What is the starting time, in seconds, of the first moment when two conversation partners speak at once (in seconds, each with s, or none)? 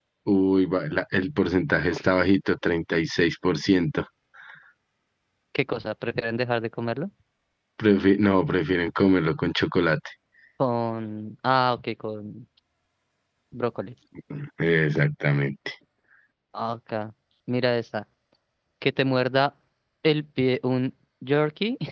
none